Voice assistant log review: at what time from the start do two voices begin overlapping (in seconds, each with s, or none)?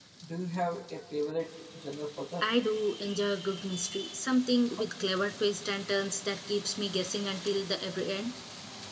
none